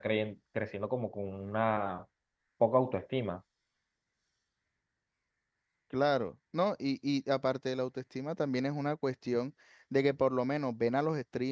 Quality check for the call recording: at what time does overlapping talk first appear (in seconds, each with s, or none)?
none